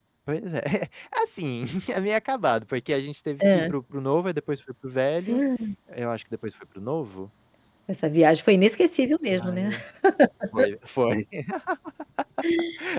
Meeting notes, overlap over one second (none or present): none